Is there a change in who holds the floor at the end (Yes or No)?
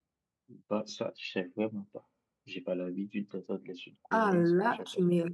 Yes